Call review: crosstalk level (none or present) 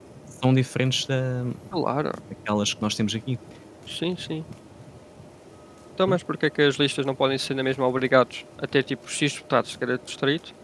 none